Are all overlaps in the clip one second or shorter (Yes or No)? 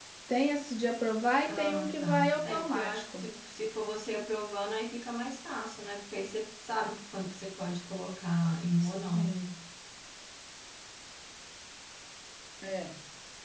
No